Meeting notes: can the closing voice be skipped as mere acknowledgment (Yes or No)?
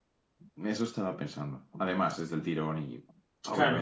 No